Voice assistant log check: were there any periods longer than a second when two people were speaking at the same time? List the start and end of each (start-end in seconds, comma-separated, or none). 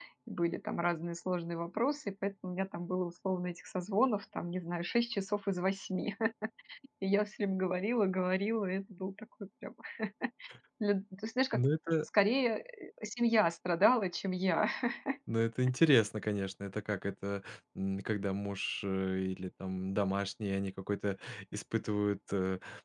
none